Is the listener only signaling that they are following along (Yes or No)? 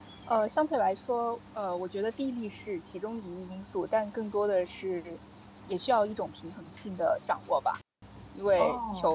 Yes